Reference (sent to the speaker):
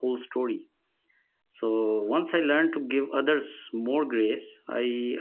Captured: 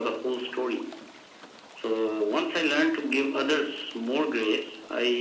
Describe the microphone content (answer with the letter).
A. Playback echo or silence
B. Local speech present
A